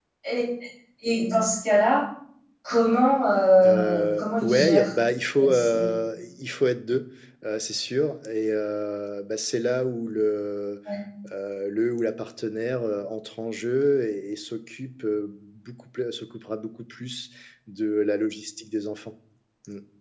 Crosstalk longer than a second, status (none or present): present